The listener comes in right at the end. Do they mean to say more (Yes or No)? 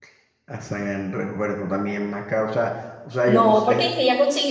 Yes